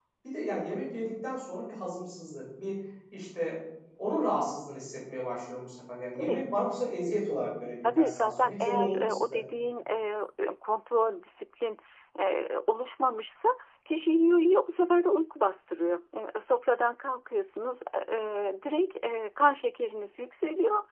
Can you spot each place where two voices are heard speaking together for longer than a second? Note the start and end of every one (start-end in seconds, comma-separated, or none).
7.8-9.4